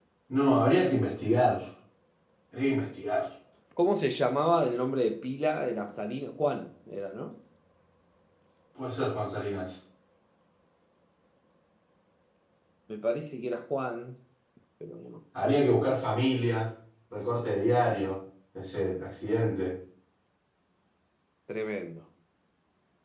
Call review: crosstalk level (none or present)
none